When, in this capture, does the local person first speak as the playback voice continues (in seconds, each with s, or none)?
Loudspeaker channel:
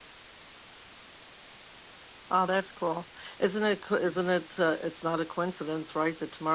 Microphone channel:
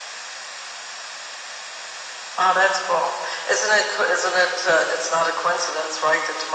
none